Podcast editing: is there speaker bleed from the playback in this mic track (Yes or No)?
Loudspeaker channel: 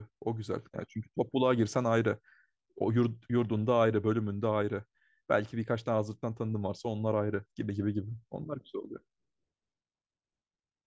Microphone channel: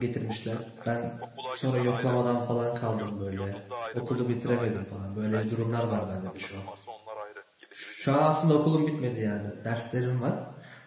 Yes